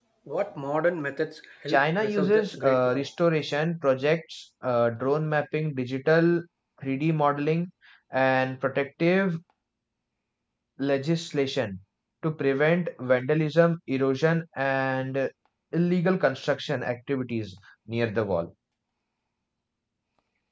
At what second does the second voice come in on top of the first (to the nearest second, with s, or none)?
2 s